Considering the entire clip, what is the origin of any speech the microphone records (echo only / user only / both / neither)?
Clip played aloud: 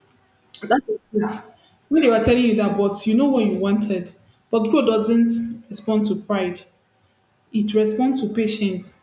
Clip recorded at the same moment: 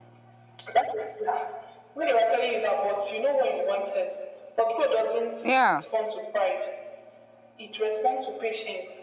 both